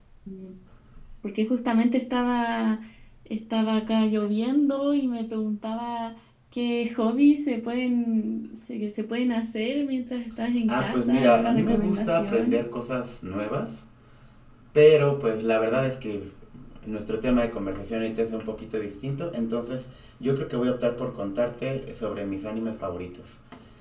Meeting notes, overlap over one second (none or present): present